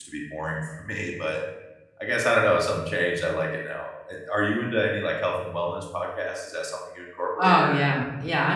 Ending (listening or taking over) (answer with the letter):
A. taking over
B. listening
A